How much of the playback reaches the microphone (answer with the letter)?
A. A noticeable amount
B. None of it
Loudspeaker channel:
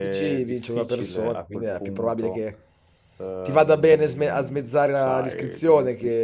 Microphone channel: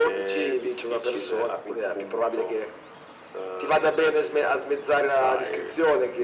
A